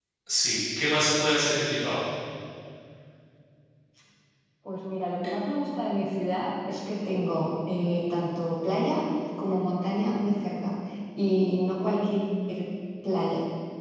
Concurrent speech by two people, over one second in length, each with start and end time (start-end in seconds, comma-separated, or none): none